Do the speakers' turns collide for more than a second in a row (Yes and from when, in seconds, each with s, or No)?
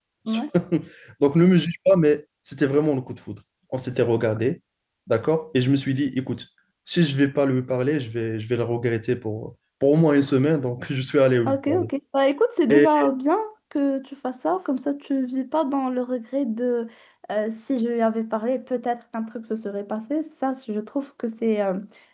No